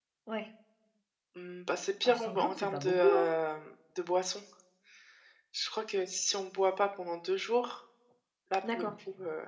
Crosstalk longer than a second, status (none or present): present